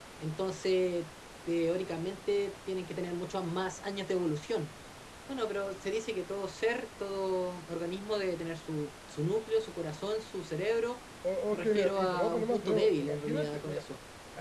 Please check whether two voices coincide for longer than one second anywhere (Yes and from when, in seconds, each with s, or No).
Yes, from 11.5 s